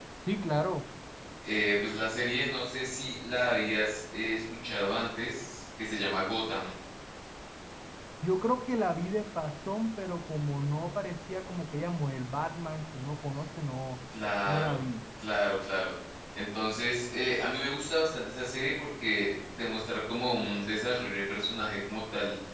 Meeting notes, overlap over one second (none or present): none